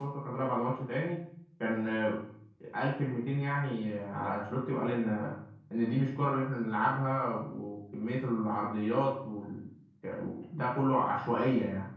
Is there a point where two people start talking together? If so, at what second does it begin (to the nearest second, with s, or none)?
none